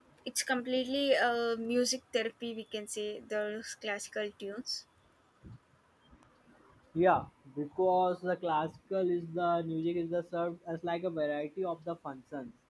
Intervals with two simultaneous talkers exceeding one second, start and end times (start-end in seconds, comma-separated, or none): none